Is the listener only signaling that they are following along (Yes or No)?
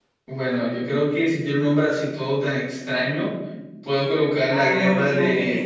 No